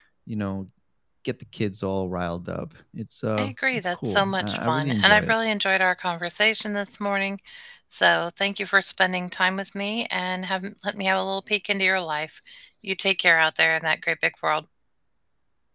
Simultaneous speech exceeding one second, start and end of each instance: 3.4-5.3

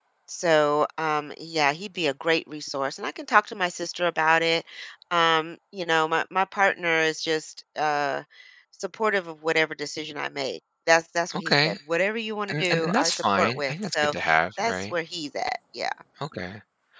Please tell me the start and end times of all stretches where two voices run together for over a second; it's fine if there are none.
12.5-14.1

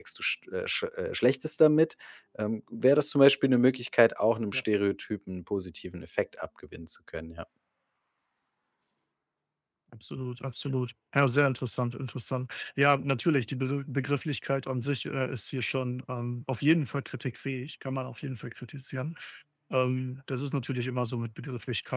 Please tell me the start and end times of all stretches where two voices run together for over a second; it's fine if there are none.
none

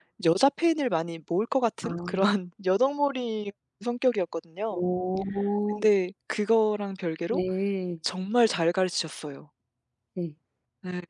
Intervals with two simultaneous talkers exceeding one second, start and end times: none

